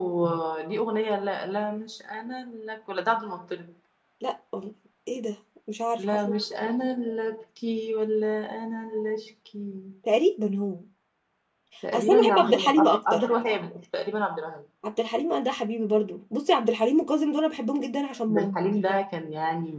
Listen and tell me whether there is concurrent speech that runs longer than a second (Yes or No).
Yes